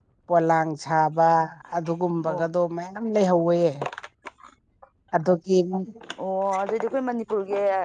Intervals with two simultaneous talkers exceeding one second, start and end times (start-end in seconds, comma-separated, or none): none